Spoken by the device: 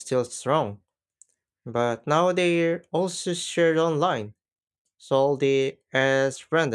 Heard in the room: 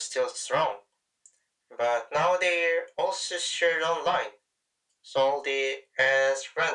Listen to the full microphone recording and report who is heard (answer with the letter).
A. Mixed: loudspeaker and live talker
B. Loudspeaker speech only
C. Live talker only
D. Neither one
B